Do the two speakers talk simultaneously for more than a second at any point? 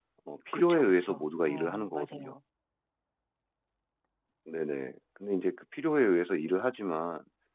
Yes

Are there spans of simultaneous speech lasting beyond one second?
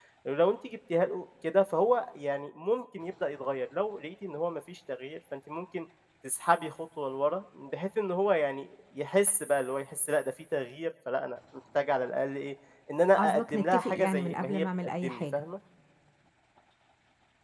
Yes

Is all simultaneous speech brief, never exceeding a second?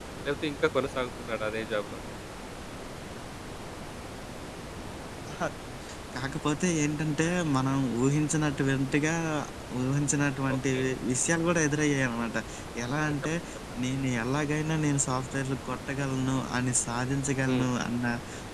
Yes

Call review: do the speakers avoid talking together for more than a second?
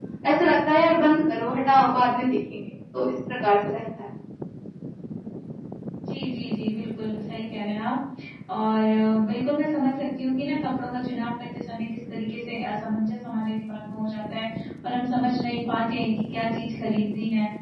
Yes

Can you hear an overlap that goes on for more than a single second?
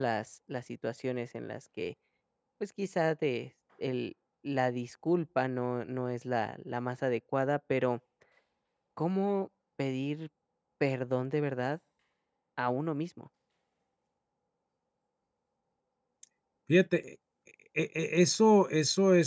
No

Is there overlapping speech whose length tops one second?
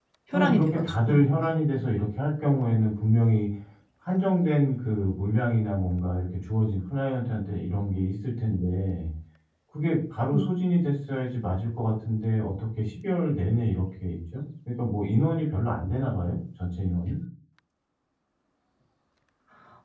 Yes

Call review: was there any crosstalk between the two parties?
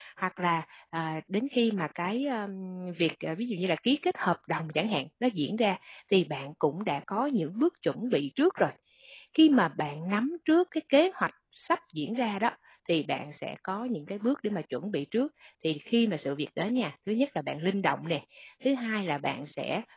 No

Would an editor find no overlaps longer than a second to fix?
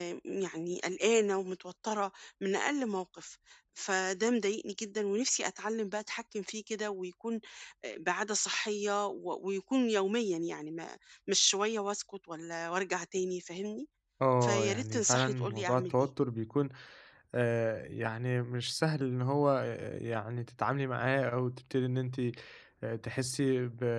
No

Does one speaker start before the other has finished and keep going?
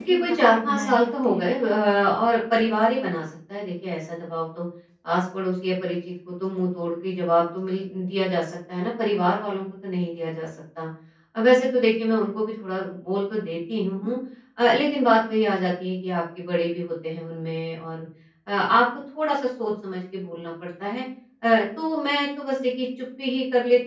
Yes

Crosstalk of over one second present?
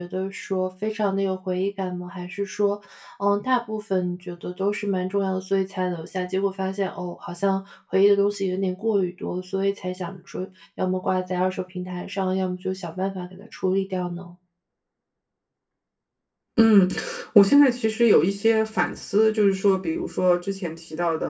No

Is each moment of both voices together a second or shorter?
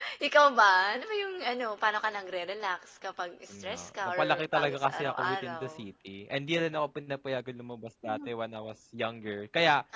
No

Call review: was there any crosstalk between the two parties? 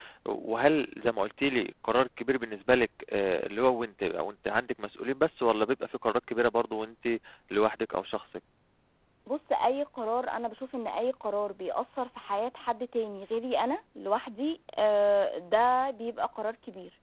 No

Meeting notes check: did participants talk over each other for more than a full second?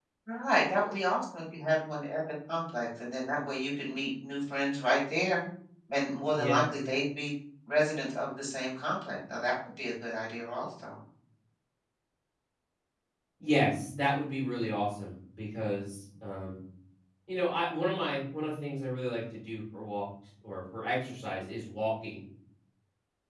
No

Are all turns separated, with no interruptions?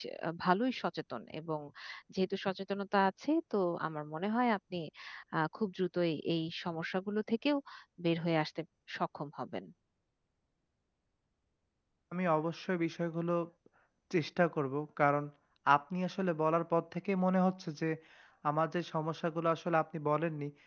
Yes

